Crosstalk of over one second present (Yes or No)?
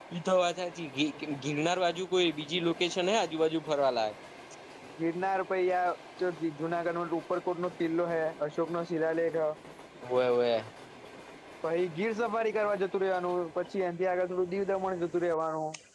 No